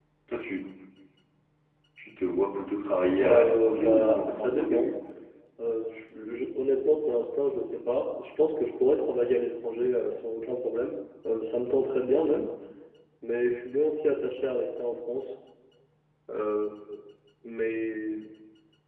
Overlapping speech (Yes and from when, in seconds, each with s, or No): Yes, from 3.1 s